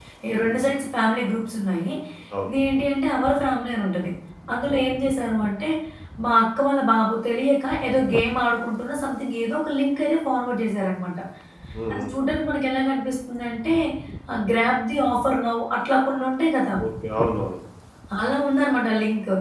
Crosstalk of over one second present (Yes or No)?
No